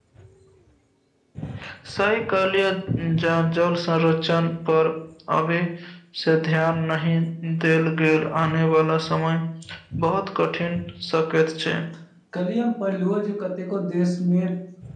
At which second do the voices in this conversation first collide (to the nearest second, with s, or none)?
none